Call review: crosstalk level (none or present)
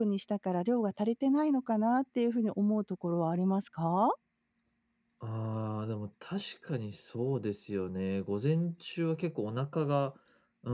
none